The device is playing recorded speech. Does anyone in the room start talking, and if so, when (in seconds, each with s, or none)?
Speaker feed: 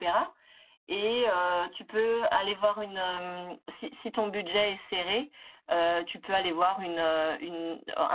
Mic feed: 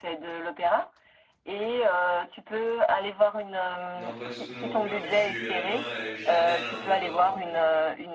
3.9 s